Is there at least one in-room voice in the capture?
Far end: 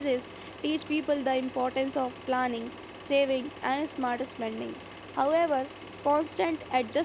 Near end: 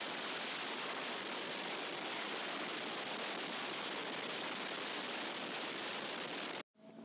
No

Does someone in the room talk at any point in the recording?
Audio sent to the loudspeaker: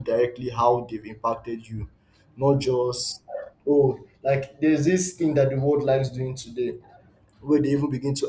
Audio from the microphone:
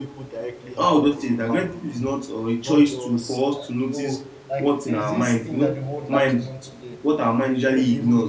Yes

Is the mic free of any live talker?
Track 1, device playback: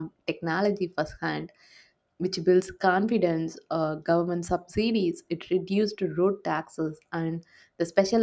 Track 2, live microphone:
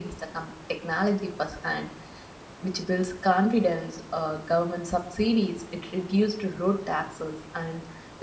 Yes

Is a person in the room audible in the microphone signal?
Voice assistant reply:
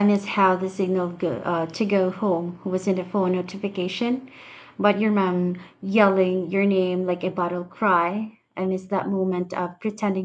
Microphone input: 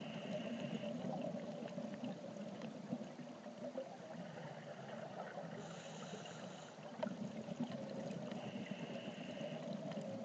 No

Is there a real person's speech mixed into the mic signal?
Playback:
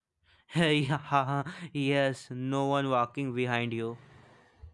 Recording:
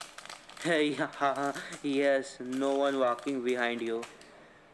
No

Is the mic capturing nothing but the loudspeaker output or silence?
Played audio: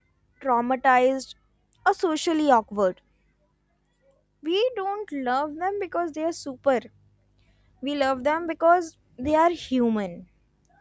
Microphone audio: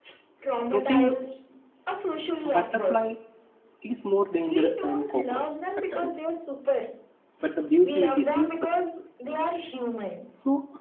No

